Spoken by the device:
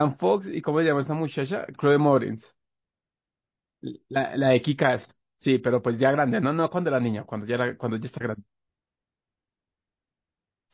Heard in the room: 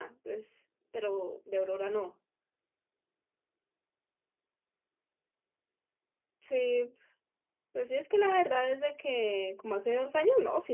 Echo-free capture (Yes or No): Yes